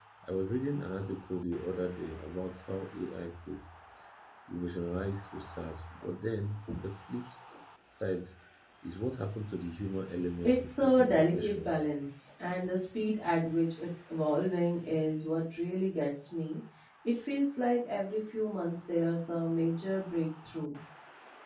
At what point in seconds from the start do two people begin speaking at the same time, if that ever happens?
10.4 s

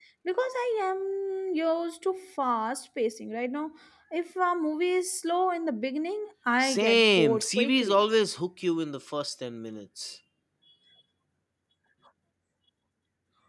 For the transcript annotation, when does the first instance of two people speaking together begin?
6.6 s

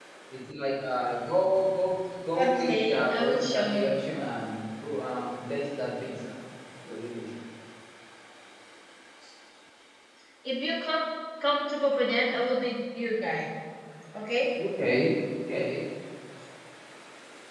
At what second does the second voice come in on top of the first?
2.3 s

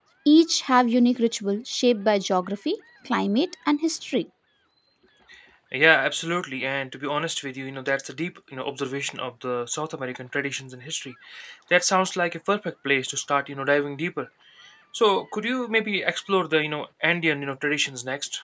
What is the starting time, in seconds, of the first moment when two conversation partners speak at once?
none

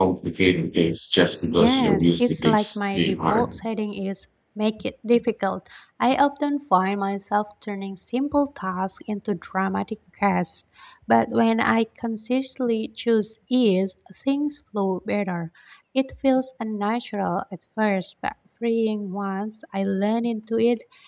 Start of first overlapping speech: 1.6 s

